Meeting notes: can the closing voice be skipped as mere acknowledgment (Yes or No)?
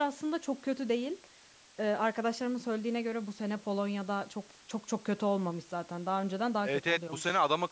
No